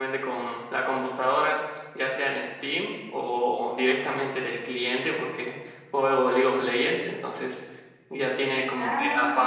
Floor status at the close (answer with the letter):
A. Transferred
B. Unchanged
B